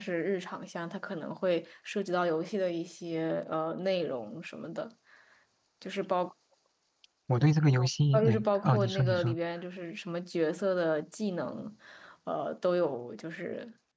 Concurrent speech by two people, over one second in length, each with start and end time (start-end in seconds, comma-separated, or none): 8.1-9.4